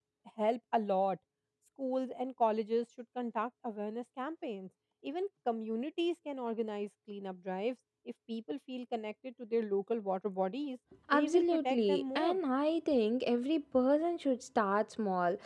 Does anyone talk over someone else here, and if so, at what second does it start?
11.1 s

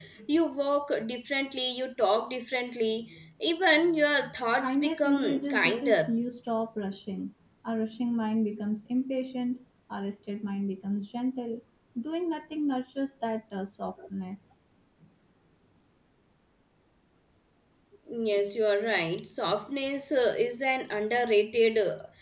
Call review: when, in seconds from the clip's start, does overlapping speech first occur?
4.6 s

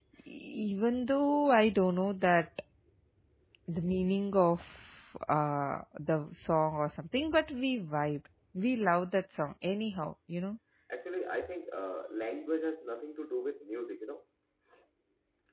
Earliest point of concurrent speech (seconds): none

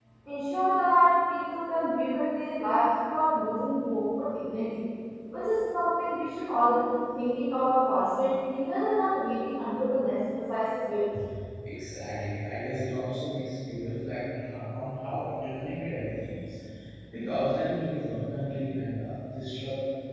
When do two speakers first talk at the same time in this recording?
none

